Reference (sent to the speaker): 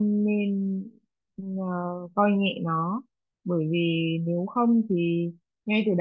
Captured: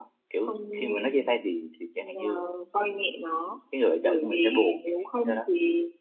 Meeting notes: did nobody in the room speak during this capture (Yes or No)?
No